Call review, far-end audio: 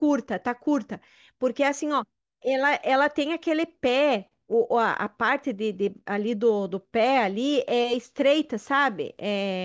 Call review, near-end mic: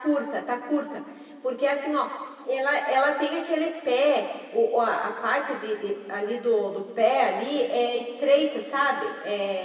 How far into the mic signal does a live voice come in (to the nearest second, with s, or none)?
none